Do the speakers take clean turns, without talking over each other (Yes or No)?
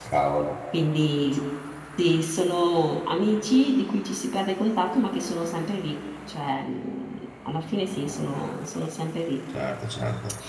Yes